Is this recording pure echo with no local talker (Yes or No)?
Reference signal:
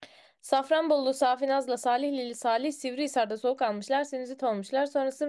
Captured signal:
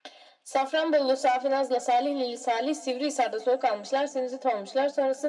Yes